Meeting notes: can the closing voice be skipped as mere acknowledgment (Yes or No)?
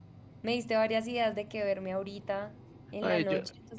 No